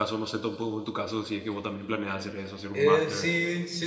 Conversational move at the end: taking over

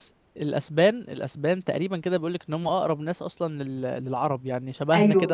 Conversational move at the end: listening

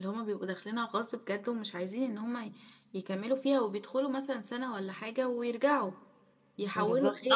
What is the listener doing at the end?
taking over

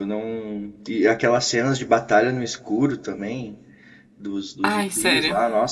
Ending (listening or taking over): listening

